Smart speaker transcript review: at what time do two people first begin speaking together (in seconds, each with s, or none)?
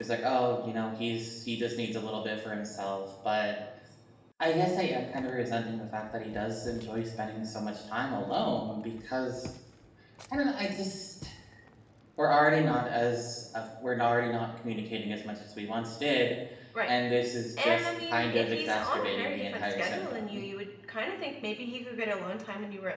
17.6 s